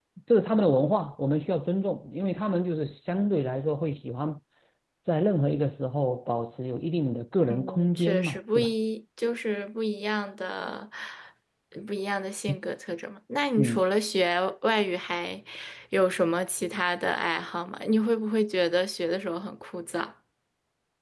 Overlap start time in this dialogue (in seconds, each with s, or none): 7.5 s